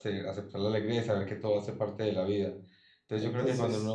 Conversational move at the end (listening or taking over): listening